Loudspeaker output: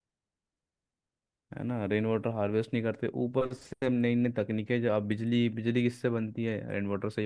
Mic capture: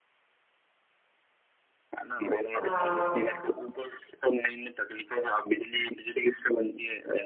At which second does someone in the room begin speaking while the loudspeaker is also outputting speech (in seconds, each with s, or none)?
2.6 s